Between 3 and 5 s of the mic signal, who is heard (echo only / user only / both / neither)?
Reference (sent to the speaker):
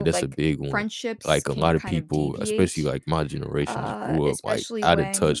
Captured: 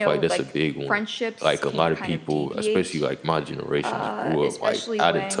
echo only